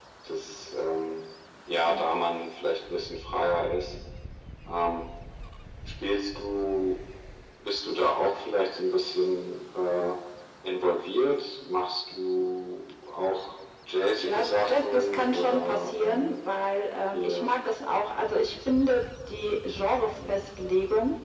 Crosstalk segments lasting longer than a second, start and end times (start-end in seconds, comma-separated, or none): 14.2-16.4